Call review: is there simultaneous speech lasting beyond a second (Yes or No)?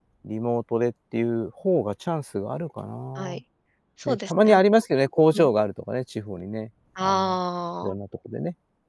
No